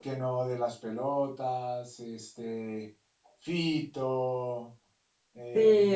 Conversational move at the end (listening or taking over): taking over